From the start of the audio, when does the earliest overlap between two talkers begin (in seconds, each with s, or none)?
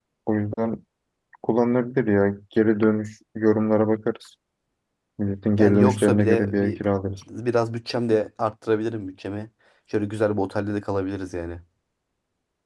5.6 s